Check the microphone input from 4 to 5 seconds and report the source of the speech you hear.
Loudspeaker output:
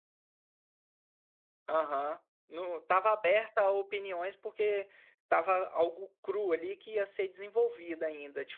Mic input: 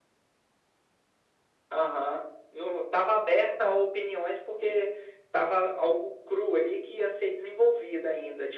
echo only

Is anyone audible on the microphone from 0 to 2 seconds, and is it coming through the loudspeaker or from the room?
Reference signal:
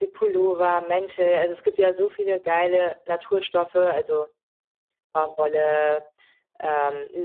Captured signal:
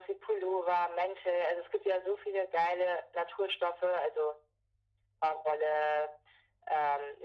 echo only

